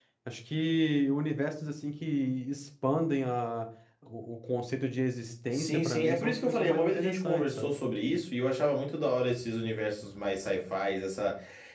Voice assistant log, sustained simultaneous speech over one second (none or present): present